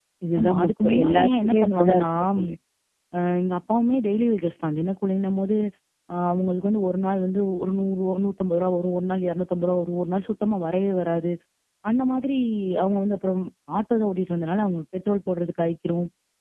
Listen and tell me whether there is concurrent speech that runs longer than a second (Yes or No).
Yes